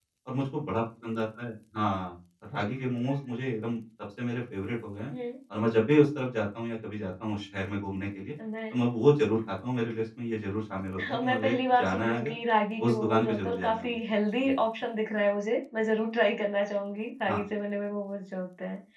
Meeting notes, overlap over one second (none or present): present